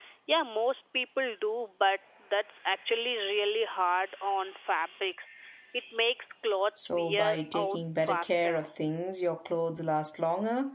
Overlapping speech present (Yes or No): Yes